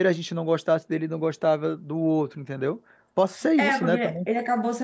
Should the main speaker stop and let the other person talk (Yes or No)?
Yes